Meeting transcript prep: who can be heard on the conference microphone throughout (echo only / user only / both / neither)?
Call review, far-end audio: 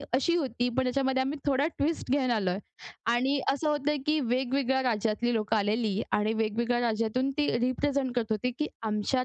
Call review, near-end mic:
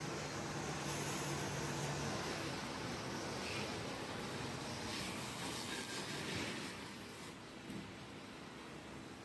neither